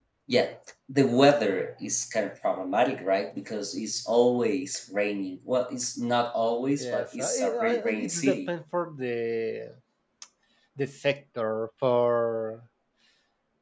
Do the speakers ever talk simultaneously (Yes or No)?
Yes